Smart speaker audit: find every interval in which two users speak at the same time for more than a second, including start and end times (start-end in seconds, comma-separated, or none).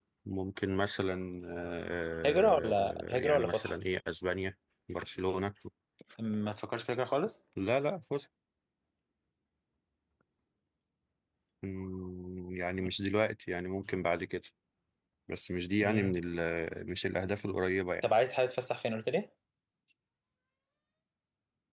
2.2-3.7